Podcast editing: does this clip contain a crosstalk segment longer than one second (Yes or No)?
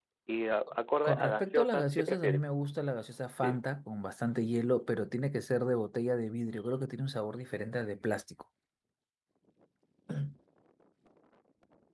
Yes